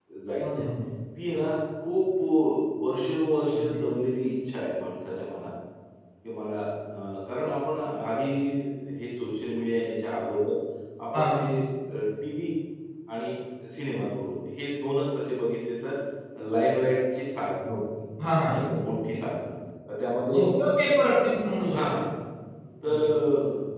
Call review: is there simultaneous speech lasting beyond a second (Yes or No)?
No